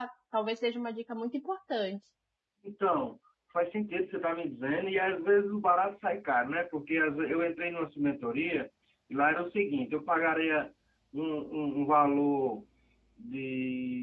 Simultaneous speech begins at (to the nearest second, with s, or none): none